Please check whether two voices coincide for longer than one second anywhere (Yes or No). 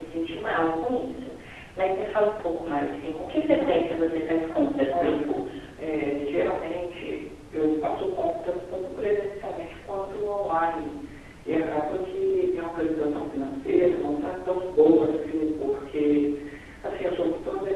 No